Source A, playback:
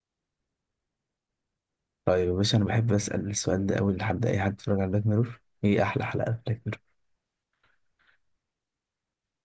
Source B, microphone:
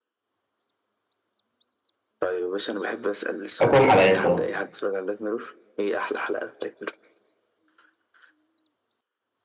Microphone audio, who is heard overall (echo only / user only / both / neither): both